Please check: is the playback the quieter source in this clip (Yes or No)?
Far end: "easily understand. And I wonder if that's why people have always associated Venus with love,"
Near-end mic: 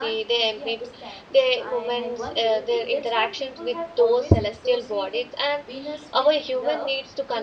Yes